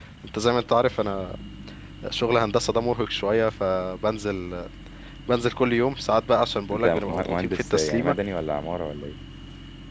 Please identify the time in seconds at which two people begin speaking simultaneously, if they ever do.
7 s

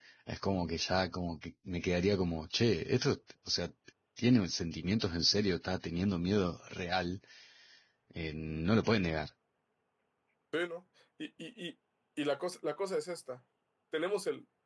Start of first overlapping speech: none

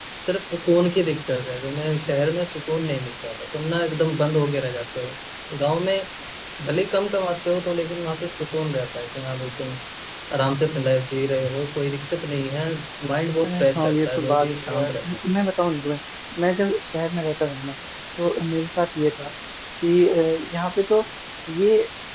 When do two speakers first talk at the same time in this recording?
13 s

